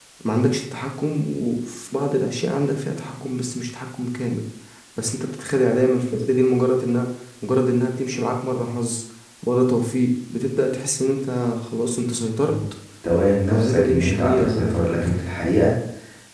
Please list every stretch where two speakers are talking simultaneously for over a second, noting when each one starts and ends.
13.5-15.1

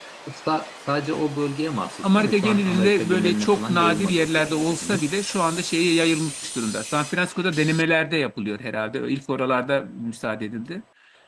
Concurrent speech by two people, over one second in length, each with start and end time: 2.0-5.0

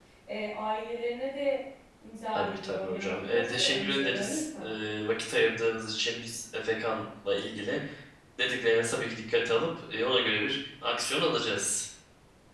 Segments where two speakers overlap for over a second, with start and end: 2.3-4.7

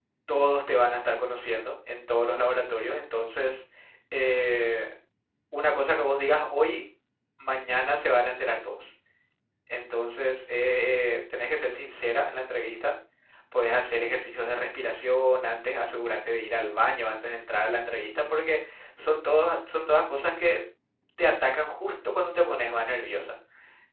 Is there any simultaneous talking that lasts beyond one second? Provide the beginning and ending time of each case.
none

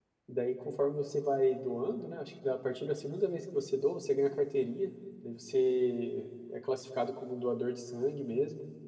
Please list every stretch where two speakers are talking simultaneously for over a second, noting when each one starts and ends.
none

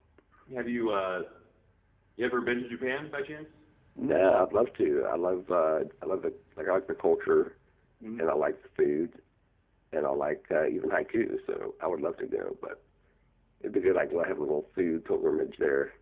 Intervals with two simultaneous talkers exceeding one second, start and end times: none

